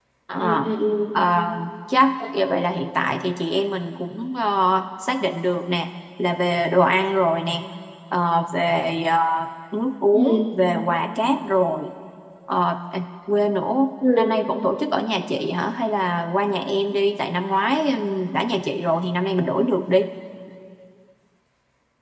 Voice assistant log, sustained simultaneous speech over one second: none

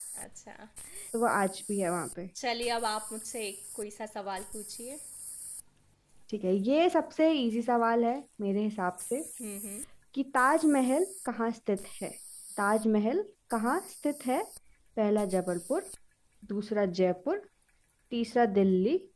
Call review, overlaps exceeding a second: none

